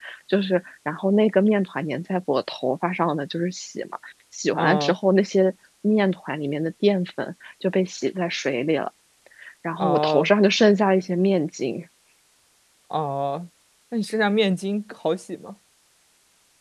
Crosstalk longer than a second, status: none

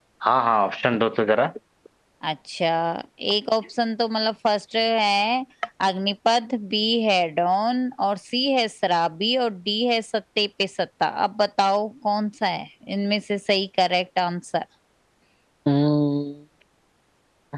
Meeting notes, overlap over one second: none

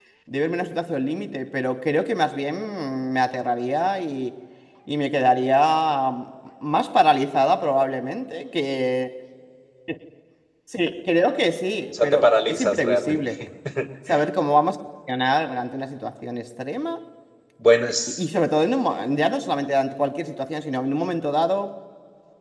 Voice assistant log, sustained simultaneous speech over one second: present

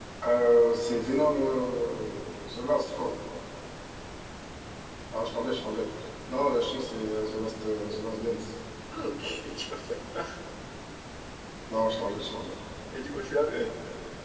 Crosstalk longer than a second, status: none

